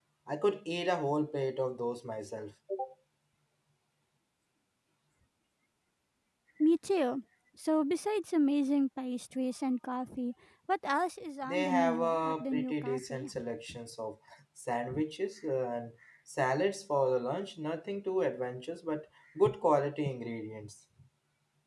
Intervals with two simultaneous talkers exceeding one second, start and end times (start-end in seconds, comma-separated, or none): 11.5-13.3